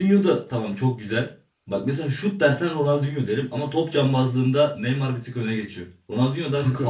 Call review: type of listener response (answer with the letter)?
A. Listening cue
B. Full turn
A